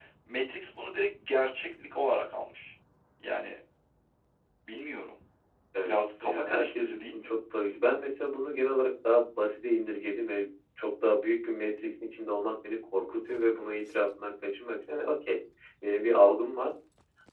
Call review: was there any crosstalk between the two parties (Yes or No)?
Yes